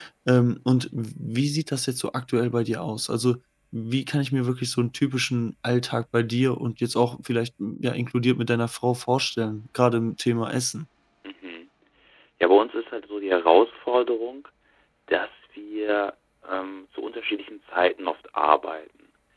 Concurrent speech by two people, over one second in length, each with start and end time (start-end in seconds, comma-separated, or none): none